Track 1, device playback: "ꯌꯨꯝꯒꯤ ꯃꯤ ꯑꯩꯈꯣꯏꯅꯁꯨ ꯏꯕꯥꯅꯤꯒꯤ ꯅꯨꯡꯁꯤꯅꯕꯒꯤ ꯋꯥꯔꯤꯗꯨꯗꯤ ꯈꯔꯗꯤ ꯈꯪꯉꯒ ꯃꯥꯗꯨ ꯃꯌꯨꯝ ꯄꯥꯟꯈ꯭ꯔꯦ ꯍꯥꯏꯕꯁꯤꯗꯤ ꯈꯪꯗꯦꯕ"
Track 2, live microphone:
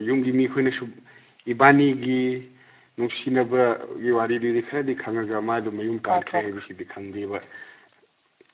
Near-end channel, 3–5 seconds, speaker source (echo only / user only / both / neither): echo only